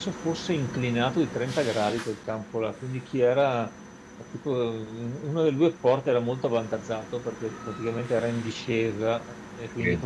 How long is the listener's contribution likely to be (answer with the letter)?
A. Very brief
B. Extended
A